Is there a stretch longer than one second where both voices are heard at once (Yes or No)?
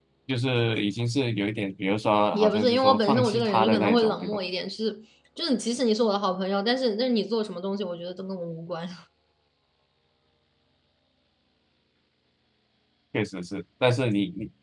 Yes